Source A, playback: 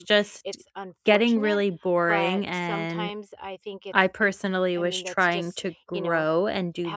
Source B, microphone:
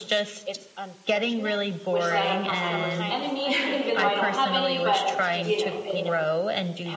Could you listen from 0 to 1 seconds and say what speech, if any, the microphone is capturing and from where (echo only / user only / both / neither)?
echo only